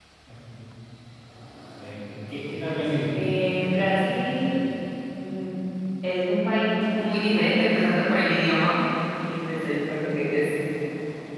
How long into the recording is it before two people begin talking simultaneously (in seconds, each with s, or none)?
none